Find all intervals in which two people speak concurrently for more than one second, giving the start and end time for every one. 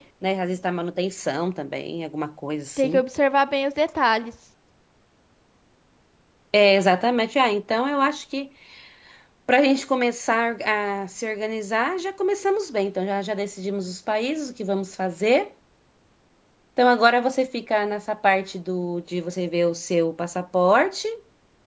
none

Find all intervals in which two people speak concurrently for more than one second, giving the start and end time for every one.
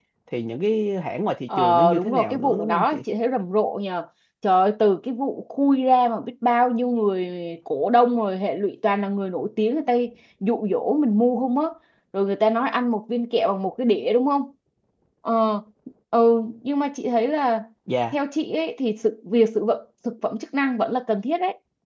1.6-3.0

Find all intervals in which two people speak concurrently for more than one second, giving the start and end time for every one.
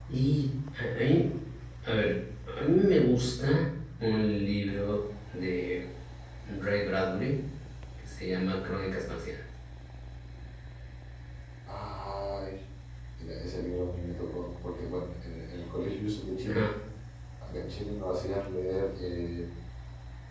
none

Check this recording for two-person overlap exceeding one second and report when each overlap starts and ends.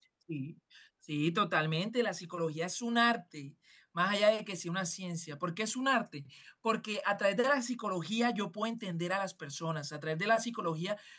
none

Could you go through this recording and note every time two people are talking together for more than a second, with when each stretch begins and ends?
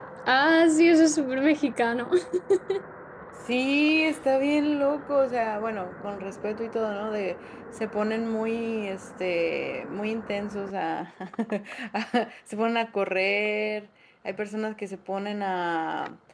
none

